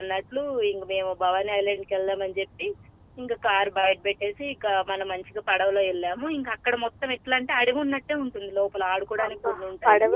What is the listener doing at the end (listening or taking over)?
taking over